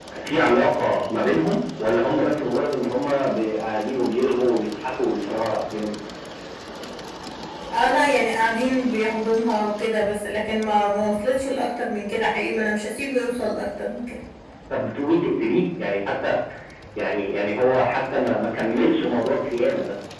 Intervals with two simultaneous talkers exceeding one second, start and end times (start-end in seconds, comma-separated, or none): none